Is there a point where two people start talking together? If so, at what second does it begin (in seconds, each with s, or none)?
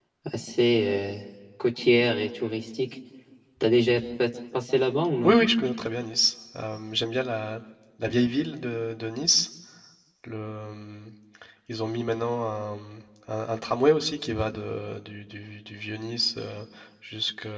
none